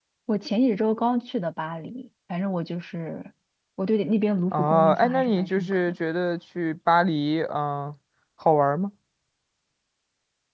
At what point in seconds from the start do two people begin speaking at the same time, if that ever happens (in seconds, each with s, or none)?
4.5 s